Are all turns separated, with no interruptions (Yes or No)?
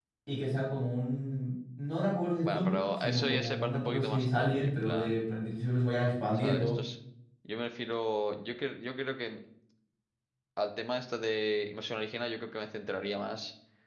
No